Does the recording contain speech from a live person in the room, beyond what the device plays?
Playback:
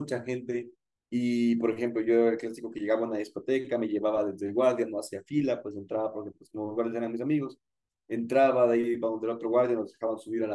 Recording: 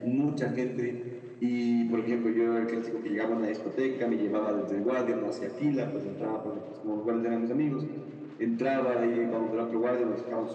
No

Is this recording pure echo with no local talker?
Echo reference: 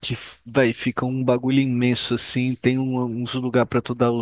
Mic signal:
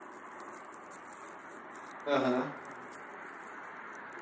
No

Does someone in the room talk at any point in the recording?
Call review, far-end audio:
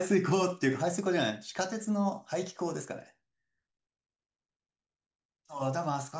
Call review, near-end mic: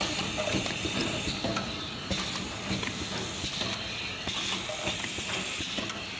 No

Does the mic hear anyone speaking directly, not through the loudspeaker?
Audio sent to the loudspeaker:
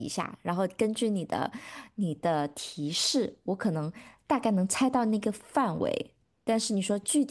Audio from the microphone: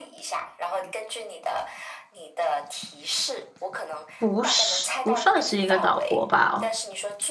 Yes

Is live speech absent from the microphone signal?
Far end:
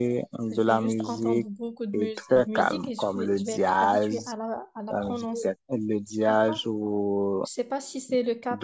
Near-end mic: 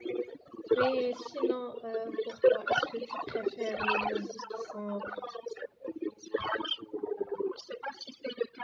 No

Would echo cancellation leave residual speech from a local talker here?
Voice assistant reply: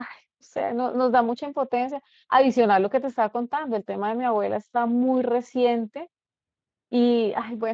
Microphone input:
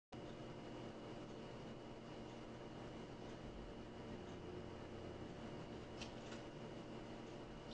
No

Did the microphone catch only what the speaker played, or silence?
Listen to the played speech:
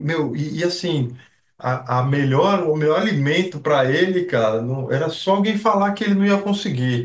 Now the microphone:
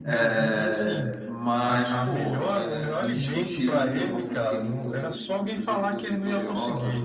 No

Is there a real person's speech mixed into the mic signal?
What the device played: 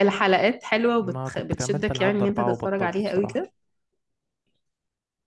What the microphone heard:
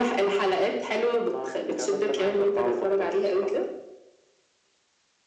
No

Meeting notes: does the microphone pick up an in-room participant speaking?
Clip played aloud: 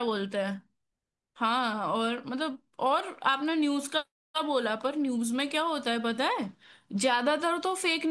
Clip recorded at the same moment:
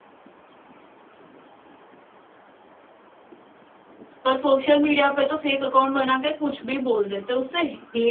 Yes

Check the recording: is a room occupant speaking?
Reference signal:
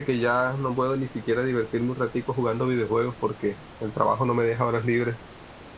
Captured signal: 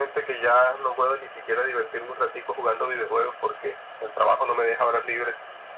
No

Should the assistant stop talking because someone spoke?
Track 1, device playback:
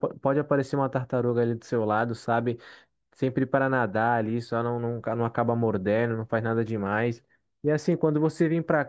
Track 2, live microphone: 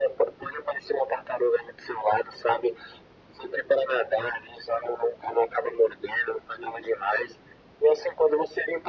No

